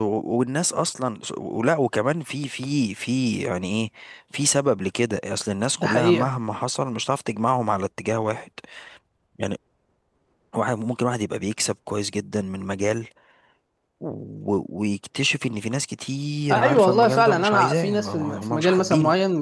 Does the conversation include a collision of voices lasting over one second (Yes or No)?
Yes